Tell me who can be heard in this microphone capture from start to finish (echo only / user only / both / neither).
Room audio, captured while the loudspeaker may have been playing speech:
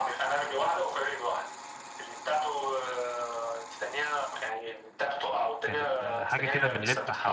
both